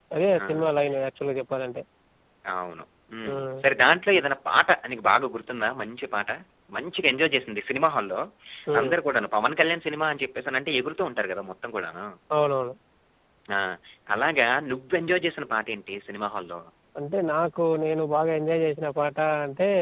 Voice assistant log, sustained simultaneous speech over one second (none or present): none